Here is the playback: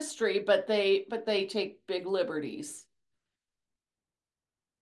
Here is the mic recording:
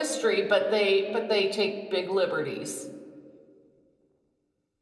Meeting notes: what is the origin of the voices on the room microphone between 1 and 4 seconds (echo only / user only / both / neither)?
echo only